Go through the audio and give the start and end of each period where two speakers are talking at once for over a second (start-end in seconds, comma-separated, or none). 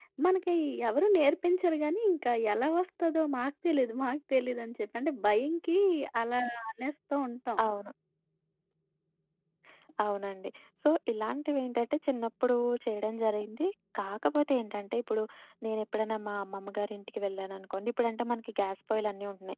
none